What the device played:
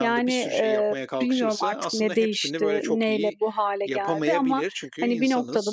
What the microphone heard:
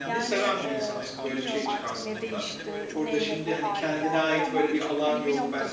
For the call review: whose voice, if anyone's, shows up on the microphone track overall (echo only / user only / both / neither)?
both